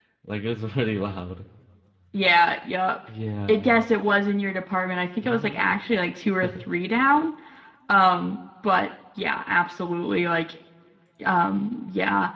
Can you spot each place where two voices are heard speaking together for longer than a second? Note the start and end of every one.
none

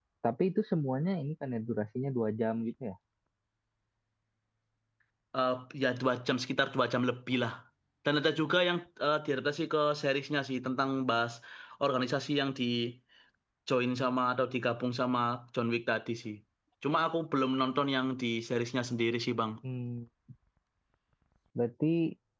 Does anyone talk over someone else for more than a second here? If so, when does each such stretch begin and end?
none

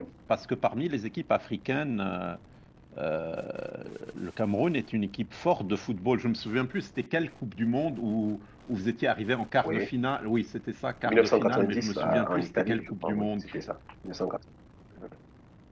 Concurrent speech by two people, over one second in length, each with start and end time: 11.0-13.3

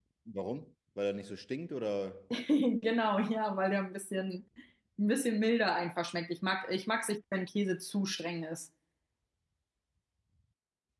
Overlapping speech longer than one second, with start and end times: none

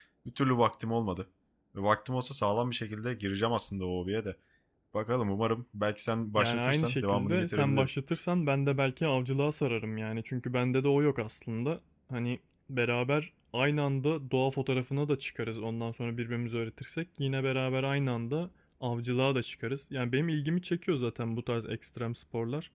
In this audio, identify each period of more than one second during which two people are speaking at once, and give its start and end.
6.4-7.9

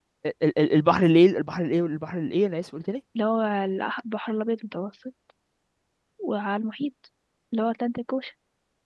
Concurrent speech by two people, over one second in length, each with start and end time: none

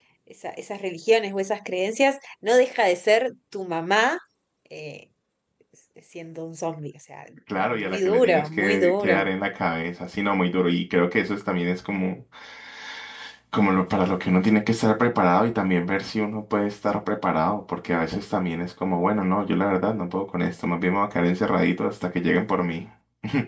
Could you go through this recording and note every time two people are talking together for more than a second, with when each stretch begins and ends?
7.6-9.2

